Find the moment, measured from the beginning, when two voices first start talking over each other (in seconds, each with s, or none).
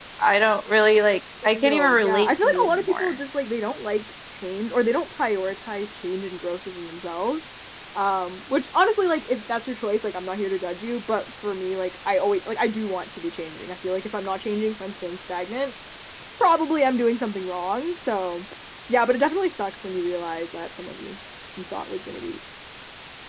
1.6 s